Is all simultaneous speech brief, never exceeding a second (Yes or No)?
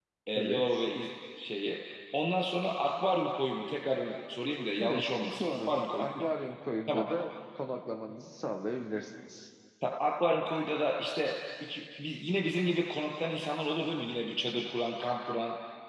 No